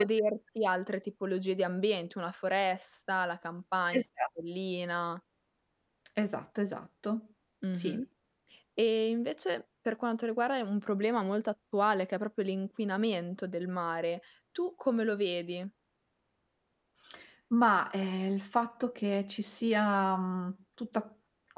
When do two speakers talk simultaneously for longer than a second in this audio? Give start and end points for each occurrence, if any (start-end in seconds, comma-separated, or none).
none